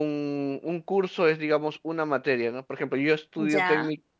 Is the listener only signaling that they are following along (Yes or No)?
Yes